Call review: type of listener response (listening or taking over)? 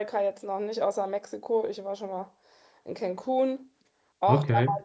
listening